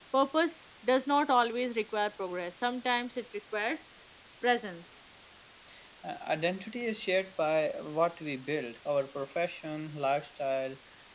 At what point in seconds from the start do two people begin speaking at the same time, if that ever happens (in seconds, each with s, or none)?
none